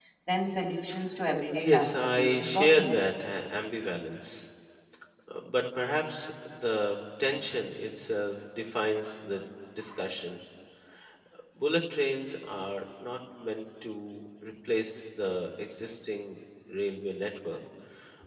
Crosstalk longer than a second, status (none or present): present